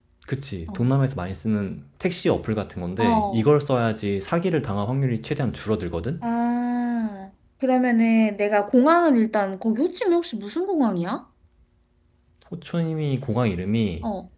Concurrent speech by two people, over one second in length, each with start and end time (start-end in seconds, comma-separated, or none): none